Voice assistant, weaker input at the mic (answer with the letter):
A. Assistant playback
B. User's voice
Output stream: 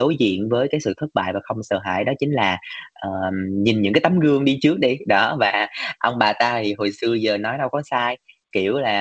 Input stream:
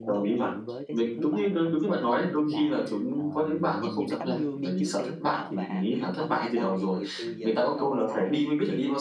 A